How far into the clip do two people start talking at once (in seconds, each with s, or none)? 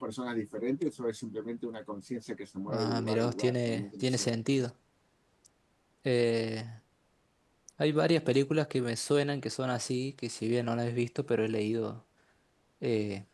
2.7 s